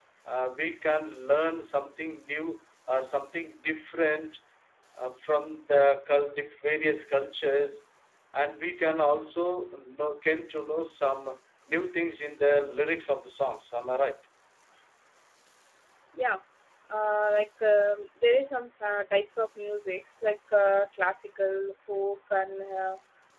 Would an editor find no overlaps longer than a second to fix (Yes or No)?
Yes